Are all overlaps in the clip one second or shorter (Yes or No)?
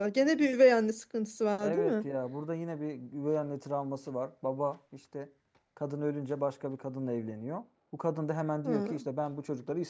Yes